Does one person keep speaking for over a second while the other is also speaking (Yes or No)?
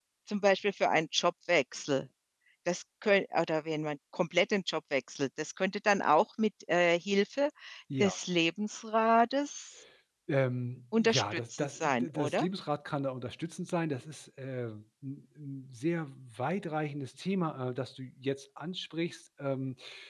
Yes